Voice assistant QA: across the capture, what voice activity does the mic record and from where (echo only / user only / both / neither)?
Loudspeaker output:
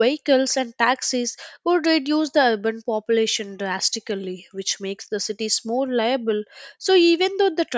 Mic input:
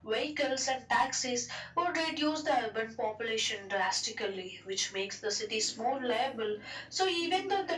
both